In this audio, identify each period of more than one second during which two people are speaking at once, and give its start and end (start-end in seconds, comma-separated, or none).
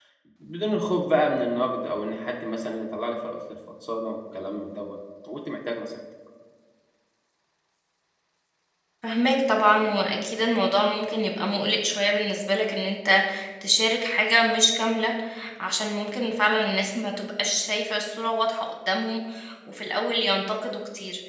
none